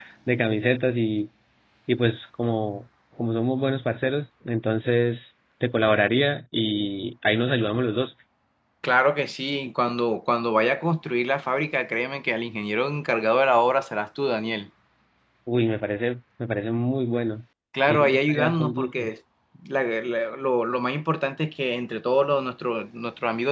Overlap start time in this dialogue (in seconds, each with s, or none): 17.9 s